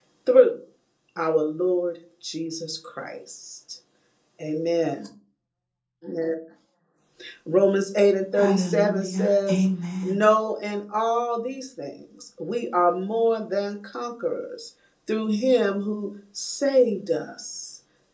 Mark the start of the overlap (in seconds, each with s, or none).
8.3 s